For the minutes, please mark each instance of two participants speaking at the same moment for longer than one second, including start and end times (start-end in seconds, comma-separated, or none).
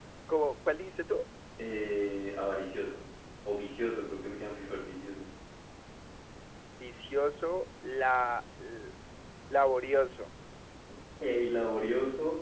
none